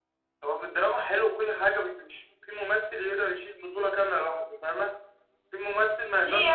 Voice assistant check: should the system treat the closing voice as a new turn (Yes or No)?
Yes